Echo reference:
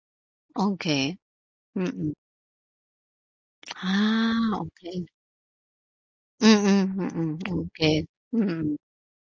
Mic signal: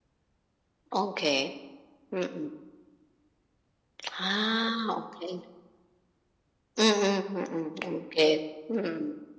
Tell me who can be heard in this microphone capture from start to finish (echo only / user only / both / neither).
echo only